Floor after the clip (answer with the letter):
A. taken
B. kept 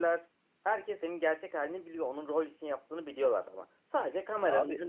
B